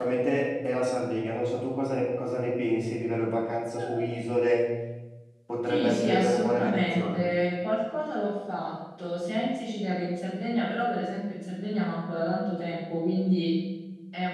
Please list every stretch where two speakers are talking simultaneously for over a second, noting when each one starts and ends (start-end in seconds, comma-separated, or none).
5.7-7.2